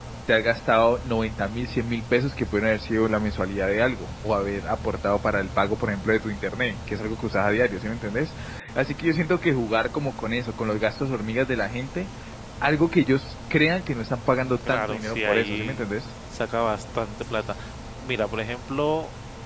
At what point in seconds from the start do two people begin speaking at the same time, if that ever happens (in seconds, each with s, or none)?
14.3 s